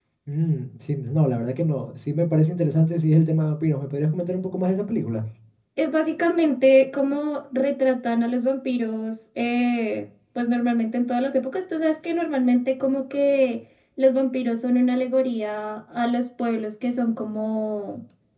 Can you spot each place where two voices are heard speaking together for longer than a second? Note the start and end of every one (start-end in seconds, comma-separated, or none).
none